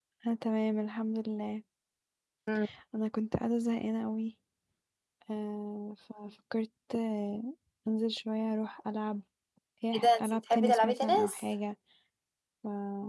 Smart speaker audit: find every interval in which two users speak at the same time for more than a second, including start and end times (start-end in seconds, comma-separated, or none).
9.9-11.4